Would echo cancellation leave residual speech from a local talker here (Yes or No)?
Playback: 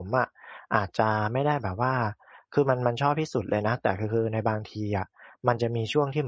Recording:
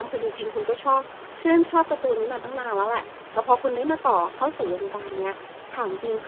Yes